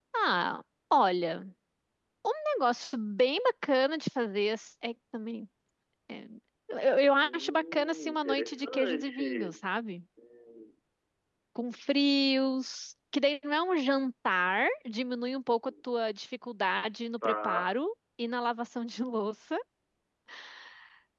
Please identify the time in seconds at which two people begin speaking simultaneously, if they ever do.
7.2 s

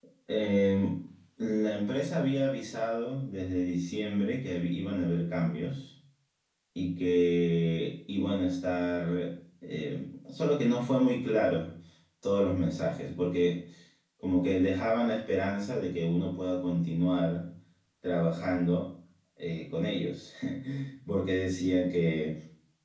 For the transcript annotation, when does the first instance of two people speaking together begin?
none

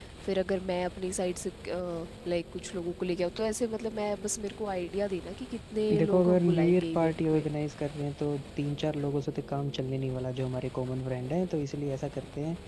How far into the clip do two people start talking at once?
5.9 s

